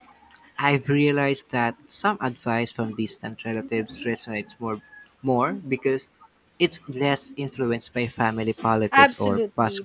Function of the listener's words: taking over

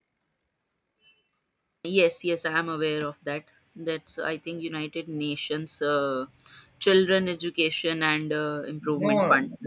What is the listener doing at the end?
taking over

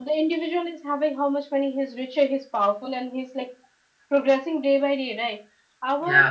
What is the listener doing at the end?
listening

